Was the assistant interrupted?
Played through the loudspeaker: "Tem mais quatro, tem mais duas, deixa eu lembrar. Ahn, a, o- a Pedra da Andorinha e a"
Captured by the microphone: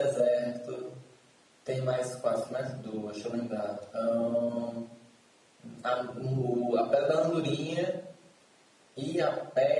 No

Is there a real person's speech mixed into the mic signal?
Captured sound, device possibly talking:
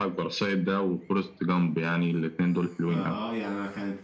Yes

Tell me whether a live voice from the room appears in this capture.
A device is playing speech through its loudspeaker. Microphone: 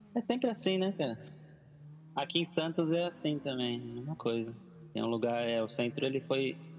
No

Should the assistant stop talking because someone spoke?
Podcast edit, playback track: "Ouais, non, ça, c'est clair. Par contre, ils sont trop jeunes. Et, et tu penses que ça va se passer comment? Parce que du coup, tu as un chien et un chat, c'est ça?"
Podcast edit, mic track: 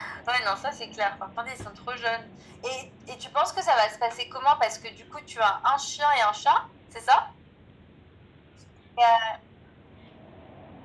No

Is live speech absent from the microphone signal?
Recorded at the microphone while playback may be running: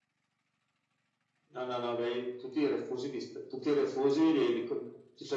Yes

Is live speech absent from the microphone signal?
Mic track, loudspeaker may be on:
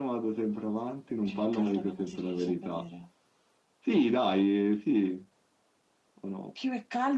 Yes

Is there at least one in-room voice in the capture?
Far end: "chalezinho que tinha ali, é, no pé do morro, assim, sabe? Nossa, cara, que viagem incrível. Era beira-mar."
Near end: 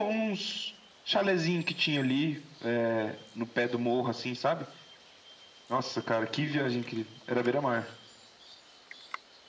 No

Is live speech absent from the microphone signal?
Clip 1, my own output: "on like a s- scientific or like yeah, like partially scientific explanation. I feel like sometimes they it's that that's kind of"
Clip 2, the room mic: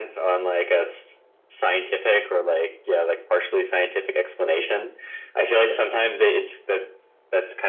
Yes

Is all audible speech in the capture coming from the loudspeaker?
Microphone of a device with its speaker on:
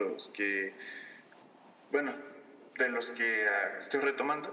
Yes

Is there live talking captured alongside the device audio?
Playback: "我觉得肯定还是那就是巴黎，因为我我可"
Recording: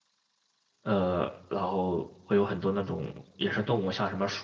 Yes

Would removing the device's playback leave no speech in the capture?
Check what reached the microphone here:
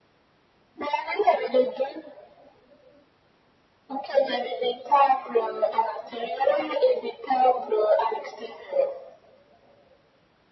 Yes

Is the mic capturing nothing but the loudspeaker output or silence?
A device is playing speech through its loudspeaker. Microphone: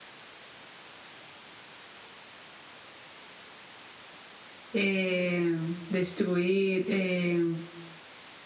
No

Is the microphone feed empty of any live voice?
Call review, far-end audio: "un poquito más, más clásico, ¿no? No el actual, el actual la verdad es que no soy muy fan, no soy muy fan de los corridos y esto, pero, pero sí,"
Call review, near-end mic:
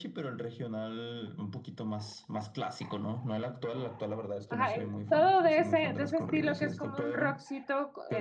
No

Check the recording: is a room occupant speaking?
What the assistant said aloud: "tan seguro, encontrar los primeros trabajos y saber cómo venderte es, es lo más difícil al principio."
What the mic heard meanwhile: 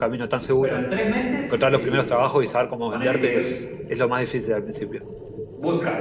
Yes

